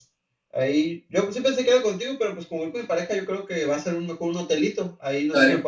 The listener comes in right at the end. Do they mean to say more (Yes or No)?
No